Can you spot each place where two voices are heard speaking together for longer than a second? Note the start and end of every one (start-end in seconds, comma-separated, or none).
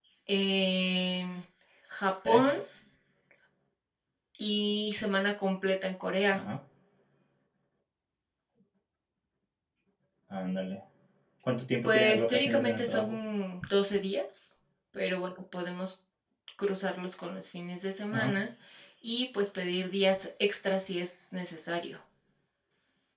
11.8-13.2